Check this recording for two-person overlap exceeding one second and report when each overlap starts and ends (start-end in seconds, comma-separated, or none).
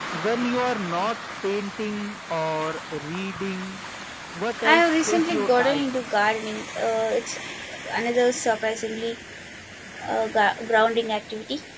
4.6-5.9